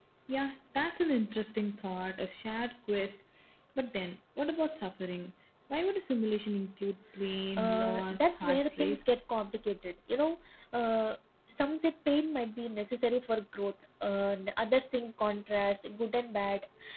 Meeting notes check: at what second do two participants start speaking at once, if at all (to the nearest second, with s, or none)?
8 s